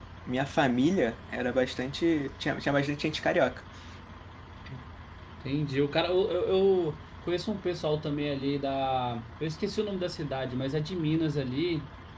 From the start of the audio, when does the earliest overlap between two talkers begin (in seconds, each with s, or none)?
none